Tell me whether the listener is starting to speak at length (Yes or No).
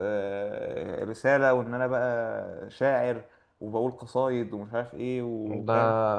Yes